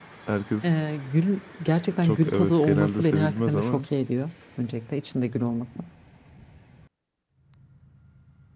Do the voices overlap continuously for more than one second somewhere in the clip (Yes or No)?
Yes